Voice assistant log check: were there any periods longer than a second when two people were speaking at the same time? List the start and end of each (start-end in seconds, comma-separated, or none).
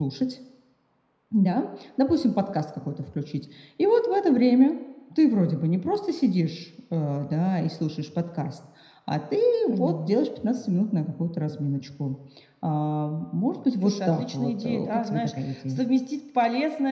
13.8-15.8